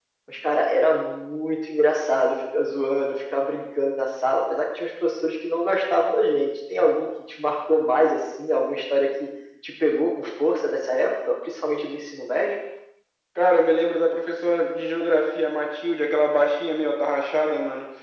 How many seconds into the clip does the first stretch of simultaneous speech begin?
none

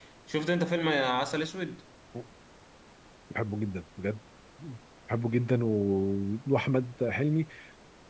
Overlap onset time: none

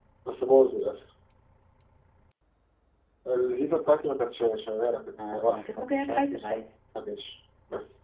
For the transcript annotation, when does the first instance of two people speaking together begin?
5.2 s

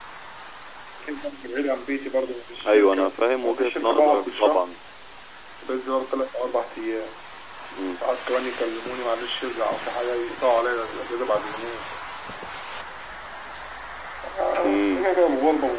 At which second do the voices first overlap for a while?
2.7 s

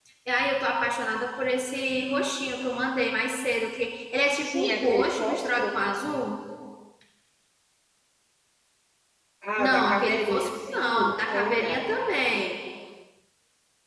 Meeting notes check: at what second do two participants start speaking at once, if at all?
4.3 s

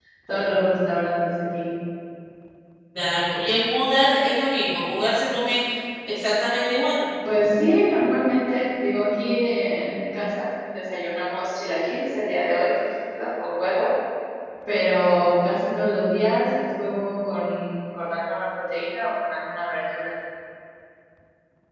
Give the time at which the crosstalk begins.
none

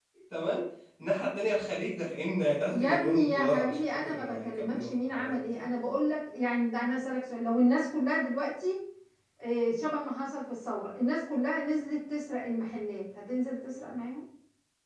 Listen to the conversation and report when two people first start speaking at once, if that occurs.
2.7 s

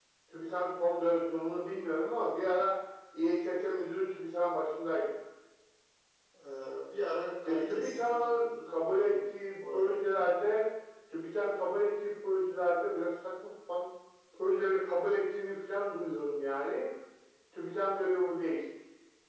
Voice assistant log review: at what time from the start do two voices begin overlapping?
7.5 s

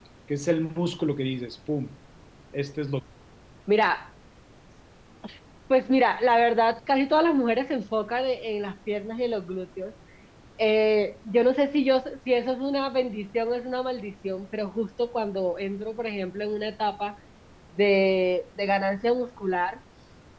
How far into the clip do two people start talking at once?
none

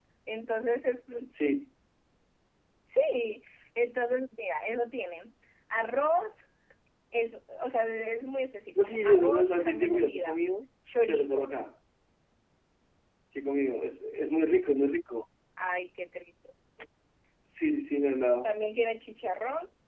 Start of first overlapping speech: 8.9 s

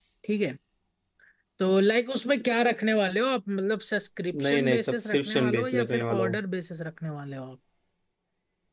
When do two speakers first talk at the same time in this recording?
4.3 s

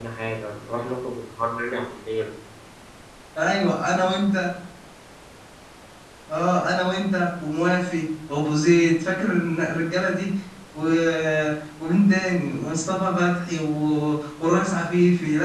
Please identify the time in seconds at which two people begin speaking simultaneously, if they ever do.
none

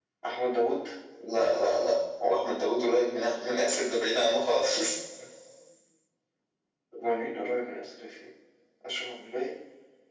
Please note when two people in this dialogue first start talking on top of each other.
none

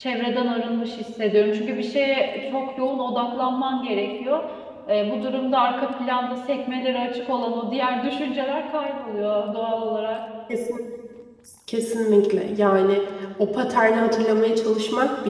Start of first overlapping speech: none

